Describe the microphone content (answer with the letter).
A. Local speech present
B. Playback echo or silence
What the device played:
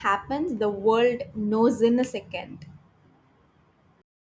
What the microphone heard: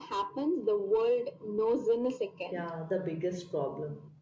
A